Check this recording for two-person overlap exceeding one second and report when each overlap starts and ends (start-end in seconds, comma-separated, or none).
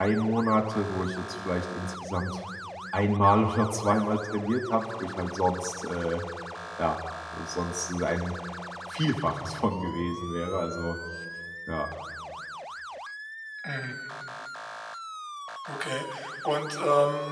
none